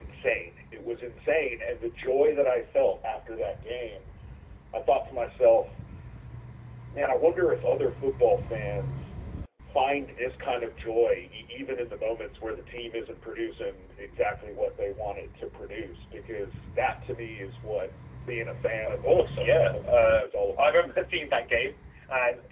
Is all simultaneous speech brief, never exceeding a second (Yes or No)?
No